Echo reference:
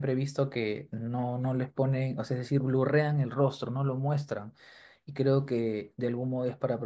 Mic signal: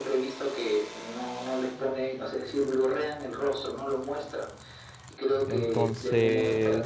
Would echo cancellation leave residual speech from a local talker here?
Yes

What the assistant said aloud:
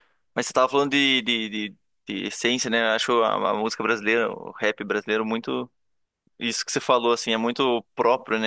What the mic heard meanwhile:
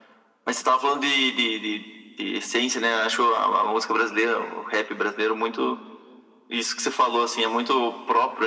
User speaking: No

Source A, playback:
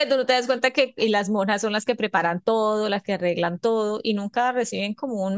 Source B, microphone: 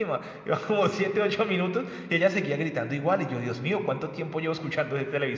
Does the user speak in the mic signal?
Yes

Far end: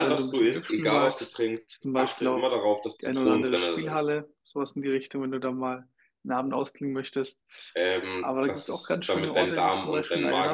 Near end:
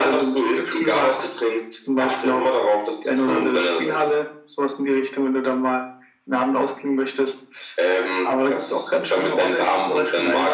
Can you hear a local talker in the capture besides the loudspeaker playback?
No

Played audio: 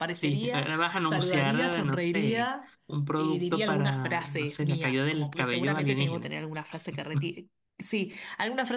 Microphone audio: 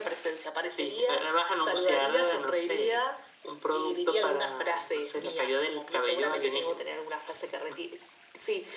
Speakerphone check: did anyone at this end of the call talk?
No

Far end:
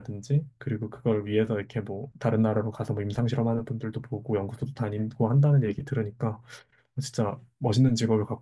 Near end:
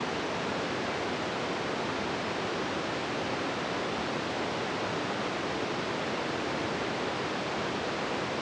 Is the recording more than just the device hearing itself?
No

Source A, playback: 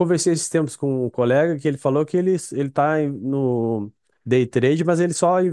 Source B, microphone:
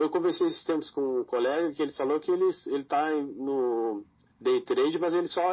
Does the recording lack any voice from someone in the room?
Yes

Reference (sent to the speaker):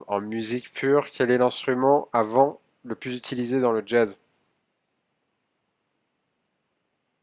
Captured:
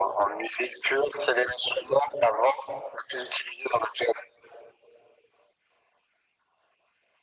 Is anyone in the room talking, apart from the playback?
No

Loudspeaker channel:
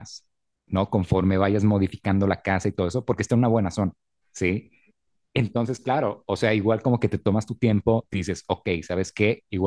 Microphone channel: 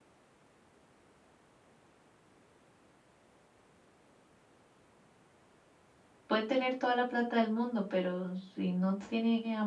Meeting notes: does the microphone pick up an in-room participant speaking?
Yes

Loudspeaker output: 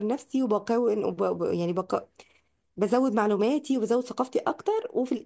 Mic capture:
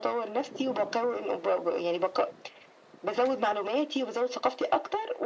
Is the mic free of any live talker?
Yes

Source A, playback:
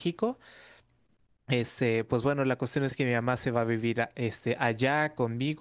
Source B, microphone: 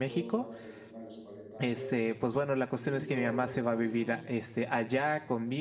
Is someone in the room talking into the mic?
Yes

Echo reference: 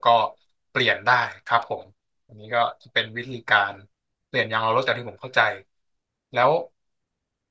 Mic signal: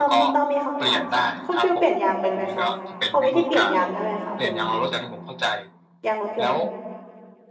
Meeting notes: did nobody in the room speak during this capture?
No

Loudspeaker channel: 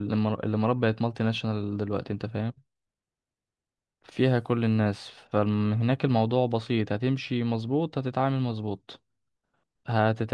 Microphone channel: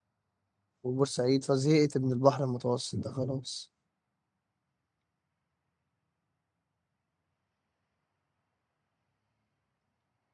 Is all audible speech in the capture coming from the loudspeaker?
No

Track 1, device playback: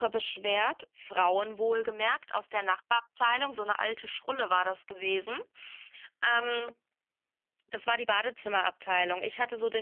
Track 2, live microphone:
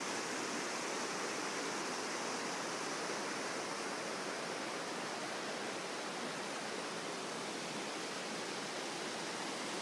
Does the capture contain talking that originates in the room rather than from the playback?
No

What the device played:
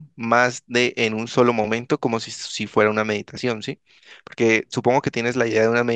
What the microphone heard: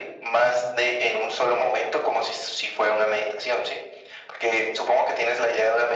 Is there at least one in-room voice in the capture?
No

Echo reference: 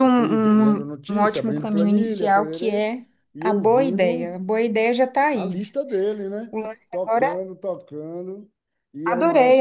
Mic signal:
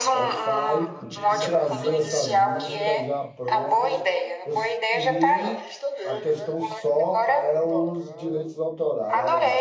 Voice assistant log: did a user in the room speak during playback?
Yes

